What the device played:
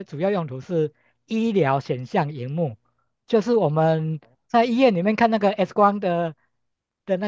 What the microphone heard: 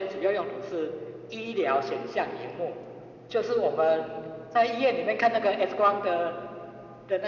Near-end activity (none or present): none